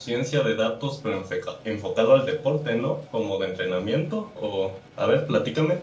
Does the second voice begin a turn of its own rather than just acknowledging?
Yes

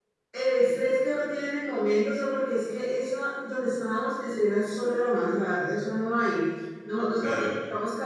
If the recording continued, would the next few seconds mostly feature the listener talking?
No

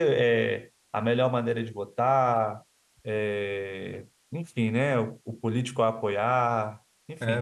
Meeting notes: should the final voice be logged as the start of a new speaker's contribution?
Yes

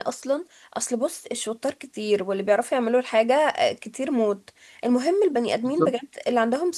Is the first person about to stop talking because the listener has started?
No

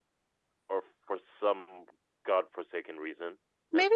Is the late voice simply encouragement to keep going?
No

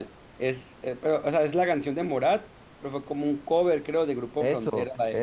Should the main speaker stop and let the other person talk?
Yes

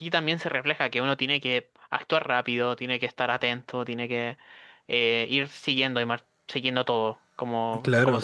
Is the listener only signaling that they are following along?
No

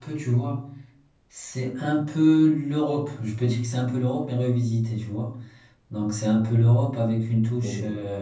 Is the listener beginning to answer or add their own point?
No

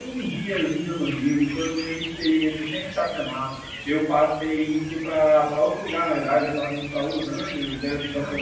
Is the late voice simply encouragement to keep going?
Yes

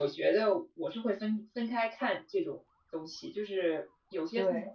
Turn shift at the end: No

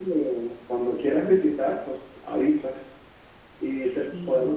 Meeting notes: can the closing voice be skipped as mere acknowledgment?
Yes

